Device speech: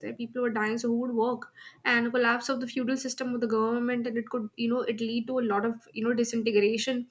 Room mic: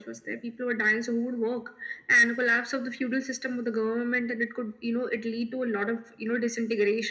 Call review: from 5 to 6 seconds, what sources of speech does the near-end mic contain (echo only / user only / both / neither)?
echo only